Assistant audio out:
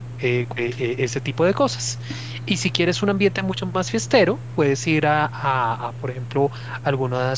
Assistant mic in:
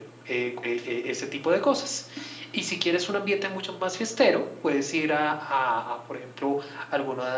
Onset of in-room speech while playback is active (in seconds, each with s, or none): none